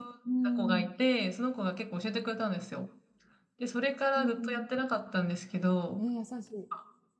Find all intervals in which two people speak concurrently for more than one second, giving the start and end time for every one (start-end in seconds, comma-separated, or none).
none